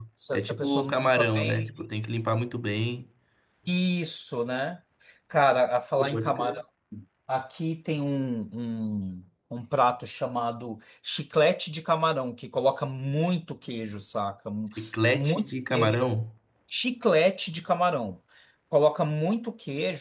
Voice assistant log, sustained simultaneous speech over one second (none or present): present